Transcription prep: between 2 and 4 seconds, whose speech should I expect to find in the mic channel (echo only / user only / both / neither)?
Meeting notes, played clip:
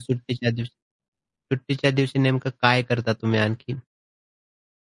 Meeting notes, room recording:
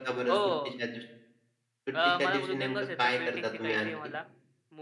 both